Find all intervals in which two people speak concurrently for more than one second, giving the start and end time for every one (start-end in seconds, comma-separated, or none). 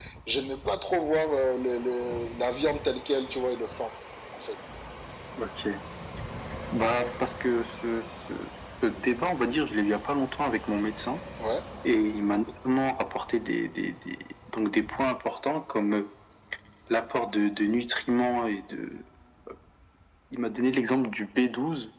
none